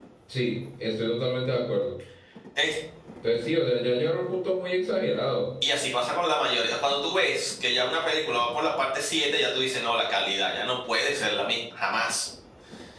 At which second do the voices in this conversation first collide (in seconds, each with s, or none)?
none